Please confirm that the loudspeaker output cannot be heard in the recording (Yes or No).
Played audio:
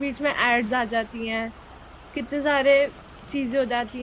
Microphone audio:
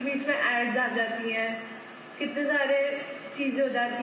No